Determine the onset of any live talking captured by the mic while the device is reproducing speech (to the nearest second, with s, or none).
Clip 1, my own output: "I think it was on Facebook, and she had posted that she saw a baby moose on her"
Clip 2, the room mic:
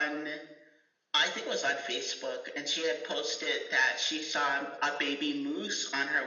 none